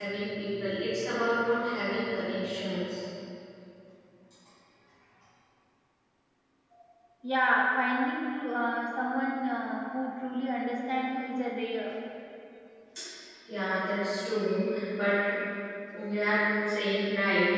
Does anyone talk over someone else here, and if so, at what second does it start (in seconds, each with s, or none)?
none